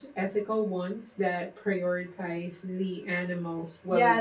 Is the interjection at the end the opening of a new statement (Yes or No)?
Yes